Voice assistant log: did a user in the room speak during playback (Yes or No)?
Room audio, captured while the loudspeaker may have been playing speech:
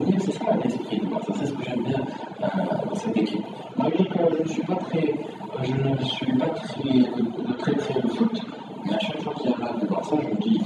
No